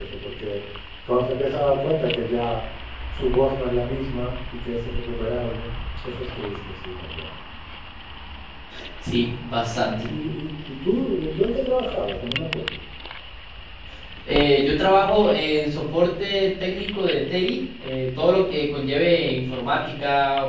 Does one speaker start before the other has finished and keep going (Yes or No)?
No